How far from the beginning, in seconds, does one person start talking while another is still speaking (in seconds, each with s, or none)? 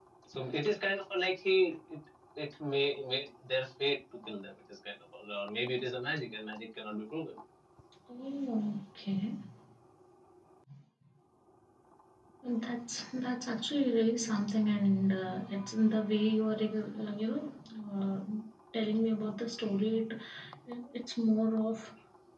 none